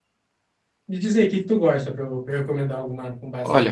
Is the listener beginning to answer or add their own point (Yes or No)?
Yes